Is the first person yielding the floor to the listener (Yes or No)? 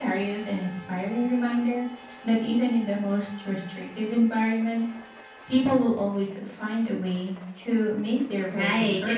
Yes